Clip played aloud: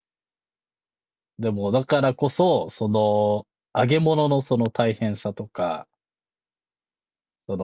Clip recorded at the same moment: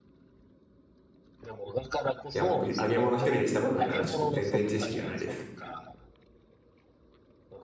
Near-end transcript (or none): いや、僕、揚げ物一人でしたことないから、ちょっと全然知識がないです。